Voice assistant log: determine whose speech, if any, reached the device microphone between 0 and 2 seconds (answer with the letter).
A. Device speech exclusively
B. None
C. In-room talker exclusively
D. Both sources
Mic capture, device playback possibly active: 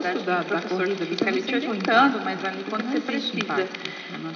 A